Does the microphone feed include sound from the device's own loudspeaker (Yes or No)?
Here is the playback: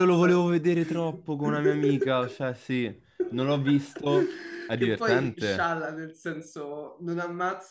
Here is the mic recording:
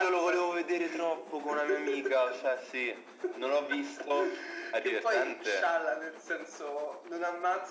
Yes